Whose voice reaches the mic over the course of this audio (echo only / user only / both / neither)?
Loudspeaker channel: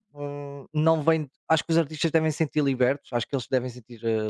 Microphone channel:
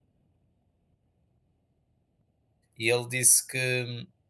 user only